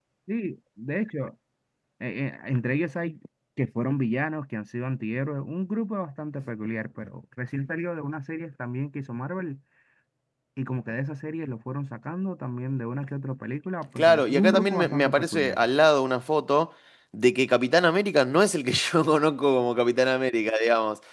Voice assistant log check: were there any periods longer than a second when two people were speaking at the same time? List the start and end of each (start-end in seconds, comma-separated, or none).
14.0-15.7